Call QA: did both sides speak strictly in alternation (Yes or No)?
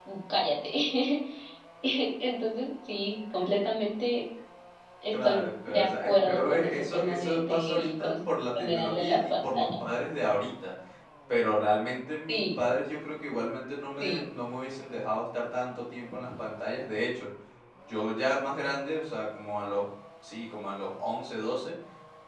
No